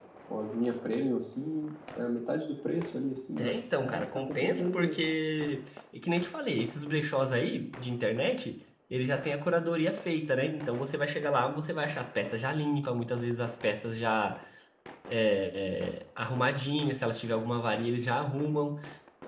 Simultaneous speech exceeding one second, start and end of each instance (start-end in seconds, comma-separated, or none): 3.4-5.0